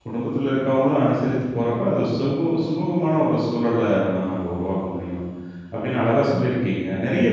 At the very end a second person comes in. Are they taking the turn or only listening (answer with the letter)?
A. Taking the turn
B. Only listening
B